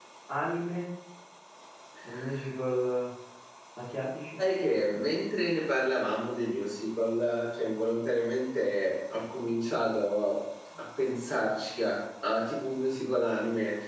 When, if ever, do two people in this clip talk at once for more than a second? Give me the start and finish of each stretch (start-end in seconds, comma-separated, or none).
none